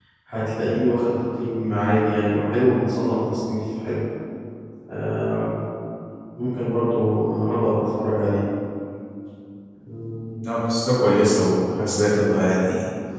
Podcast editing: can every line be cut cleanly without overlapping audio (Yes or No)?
Yes